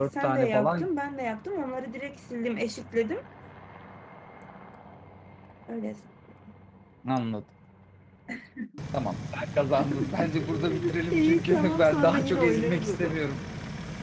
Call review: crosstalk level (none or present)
present